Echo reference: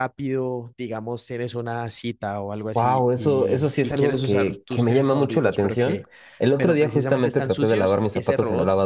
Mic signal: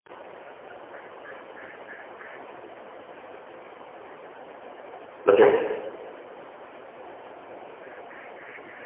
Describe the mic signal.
user only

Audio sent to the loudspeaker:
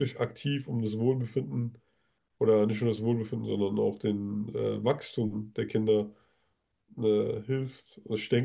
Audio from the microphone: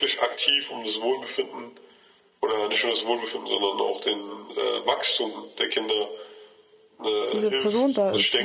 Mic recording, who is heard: both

